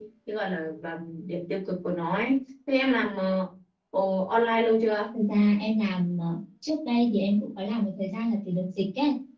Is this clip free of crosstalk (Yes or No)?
Yes